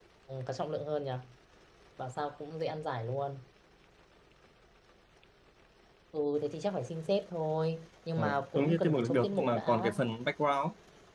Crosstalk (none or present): present